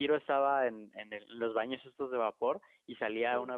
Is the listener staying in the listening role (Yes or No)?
Yes